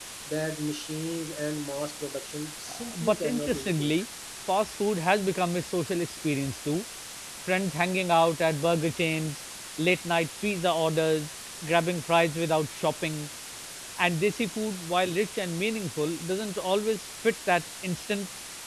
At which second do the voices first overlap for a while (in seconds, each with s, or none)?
2.7 s